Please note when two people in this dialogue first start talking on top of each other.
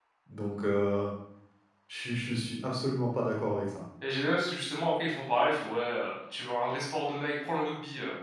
none

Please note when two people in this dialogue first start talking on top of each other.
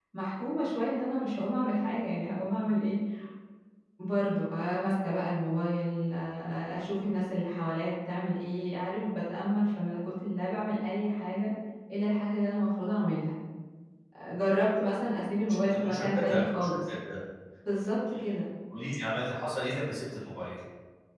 15.5 s

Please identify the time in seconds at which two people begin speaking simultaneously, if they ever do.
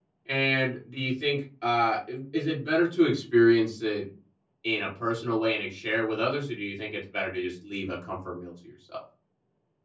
none

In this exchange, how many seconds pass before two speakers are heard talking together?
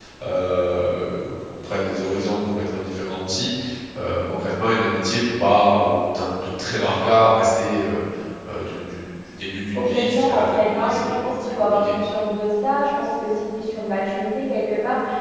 9.7 s

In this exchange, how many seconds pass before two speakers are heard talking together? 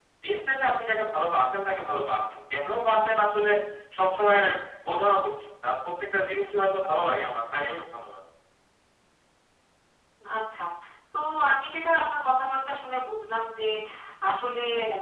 none

